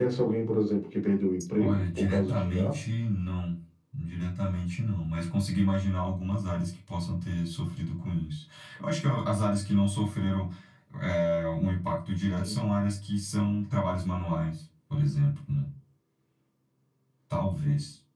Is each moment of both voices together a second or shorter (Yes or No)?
No